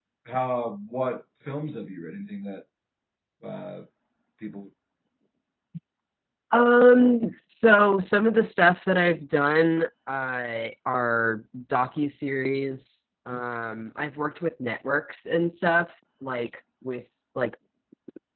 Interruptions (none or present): none